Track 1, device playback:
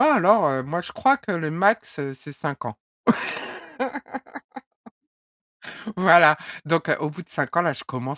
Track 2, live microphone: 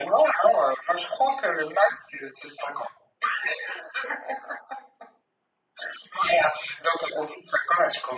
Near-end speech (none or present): none